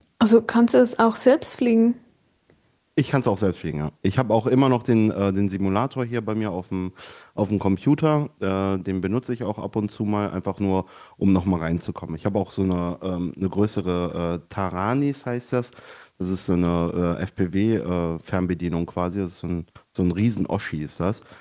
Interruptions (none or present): none